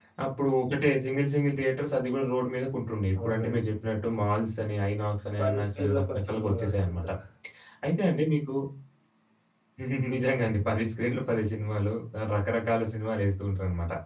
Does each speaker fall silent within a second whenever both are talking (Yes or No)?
No